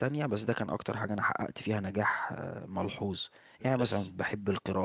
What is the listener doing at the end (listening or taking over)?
listening